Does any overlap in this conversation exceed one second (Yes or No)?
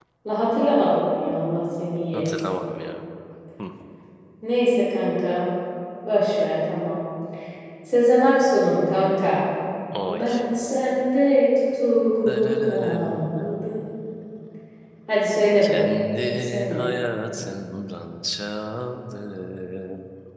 Yes